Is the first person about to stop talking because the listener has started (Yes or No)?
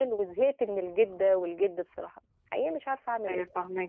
Yes